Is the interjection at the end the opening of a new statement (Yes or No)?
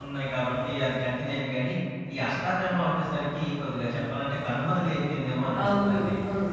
Yes